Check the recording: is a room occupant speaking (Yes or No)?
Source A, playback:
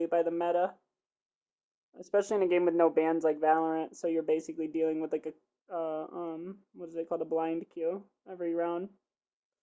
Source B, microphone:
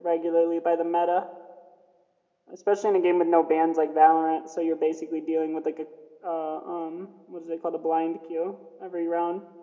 No